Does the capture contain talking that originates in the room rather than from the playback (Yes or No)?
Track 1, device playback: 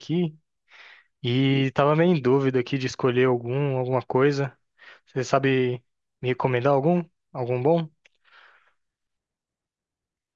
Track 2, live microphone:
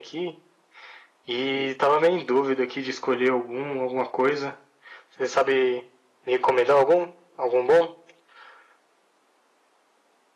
No